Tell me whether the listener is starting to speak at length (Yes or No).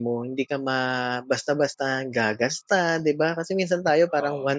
No